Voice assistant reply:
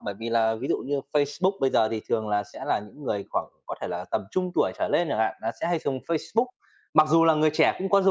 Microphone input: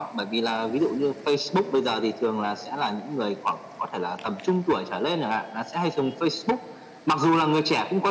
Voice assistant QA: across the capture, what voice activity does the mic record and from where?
echo only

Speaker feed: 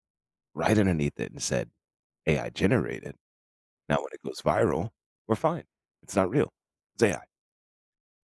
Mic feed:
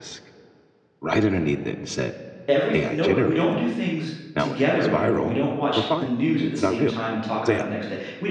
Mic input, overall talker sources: both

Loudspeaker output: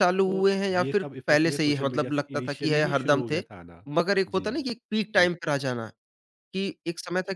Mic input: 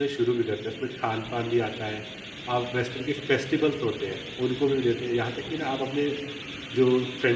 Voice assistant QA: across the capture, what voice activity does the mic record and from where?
user only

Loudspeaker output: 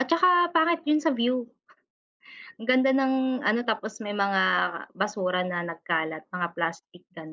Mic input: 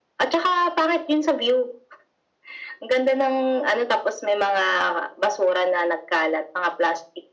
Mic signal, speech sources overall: echo only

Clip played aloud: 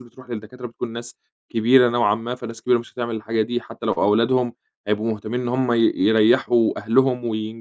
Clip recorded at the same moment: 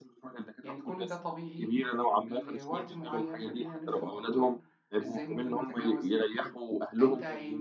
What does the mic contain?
both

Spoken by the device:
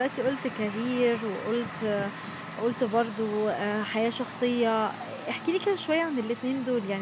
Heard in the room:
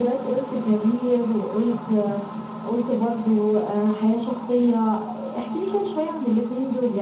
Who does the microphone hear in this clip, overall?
echo only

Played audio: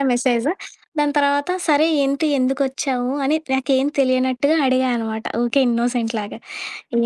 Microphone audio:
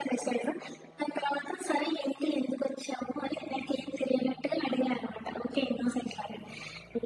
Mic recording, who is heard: echo only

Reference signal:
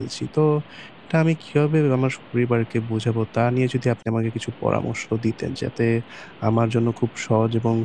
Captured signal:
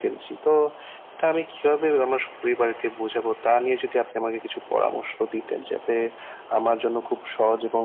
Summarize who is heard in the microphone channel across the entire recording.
echo only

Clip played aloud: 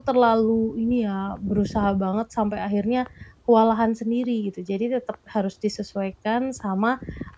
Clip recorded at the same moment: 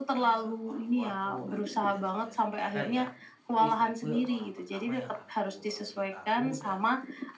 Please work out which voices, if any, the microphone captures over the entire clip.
both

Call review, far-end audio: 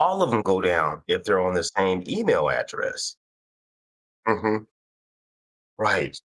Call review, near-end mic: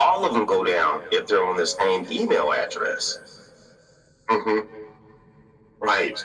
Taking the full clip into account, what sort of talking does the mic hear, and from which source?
echo only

